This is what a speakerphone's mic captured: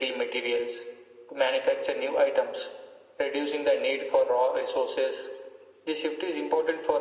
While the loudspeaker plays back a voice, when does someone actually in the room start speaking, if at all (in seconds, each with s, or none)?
none